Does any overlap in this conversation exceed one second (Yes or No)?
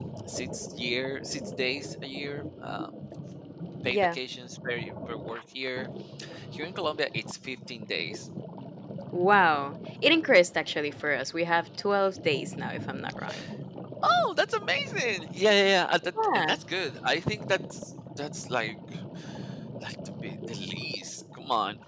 No